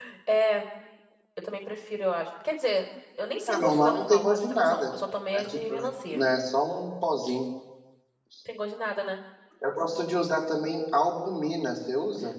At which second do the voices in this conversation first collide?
3 s

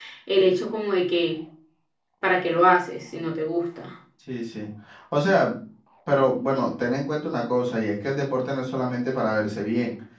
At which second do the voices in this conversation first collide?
none

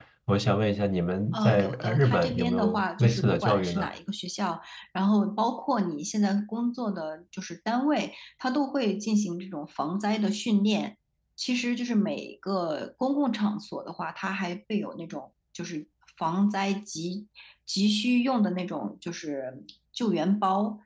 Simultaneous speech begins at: 1 s

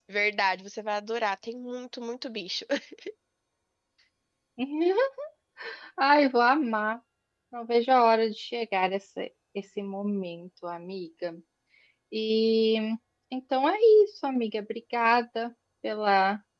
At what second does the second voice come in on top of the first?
none

